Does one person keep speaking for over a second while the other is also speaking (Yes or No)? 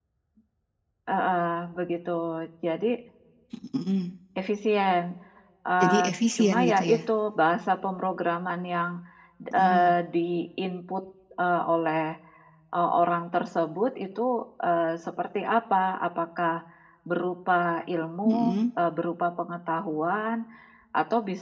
Yes